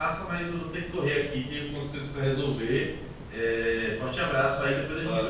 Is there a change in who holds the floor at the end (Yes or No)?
Yes